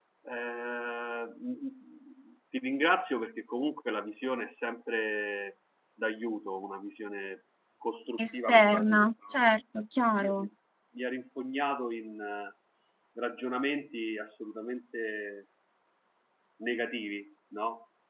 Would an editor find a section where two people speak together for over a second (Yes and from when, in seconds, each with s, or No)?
Yes, from 8.2 s